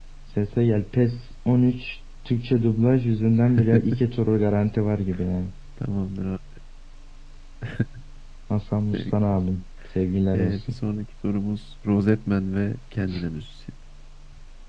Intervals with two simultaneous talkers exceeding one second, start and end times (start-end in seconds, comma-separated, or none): none